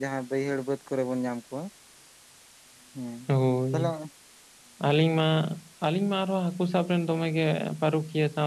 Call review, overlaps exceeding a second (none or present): none